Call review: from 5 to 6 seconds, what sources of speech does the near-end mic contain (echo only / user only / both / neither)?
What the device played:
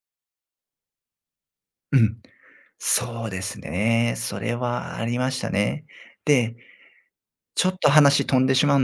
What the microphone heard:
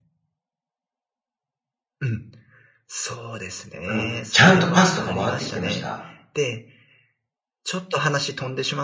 both